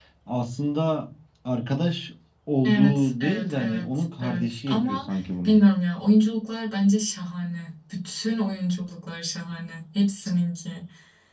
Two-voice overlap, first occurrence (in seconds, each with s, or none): 2.6 s